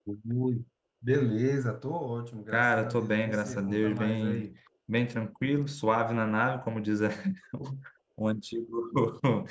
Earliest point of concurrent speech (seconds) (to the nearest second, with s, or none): 3 s